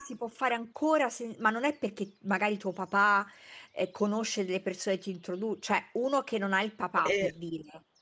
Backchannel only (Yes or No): Yes